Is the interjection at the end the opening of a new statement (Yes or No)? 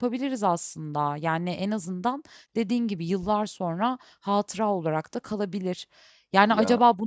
No